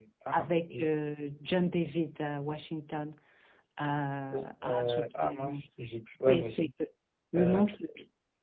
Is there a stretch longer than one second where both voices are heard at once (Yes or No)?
Yes